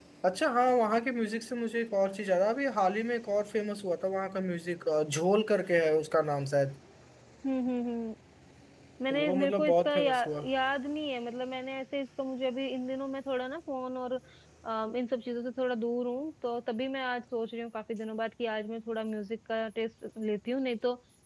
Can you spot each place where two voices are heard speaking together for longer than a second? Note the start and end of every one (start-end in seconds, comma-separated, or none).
9.1-10.5